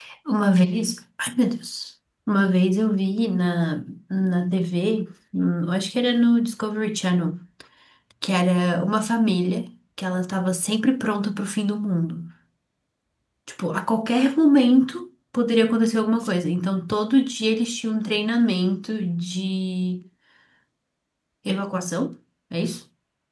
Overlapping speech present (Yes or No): No